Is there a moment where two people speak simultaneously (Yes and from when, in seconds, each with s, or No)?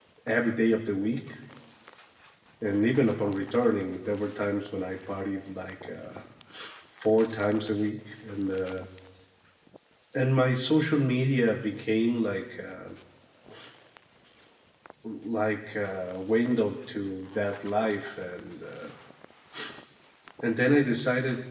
No